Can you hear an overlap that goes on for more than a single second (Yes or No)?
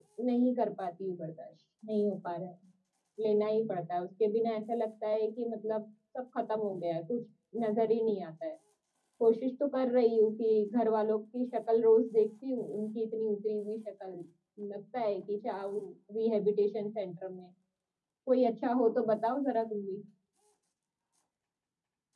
No